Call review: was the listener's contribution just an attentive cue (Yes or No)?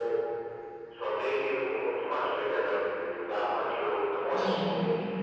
Yes